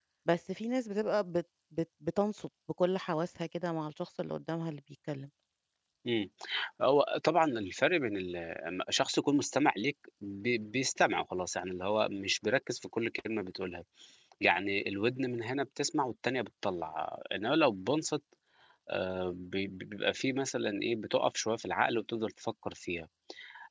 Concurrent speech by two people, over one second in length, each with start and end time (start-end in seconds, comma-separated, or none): none